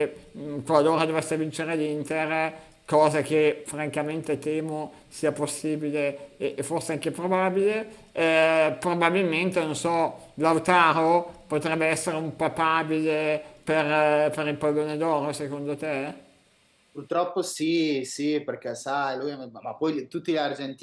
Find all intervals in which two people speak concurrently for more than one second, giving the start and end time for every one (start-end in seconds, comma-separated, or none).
none